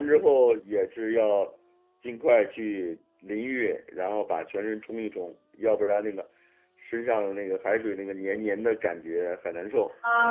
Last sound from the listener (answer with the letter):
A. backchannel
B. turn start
B